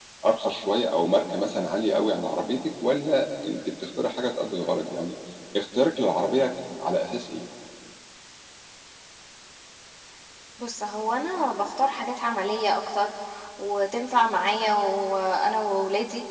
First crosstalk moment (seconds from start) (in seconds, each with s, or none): none